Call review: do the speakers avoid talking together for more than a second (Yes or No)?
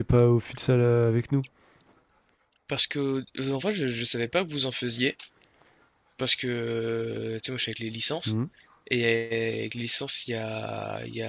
Yes